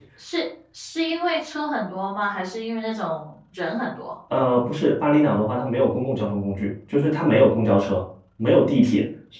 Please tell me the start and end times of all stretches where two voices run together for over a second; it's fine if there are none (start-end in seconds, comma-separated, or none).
none